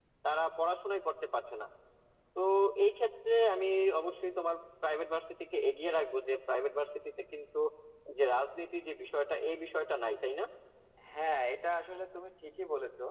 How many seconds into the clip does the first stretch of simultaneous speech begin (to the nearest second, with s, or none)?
none